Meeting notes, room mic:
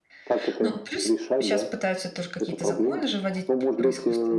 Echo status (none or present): present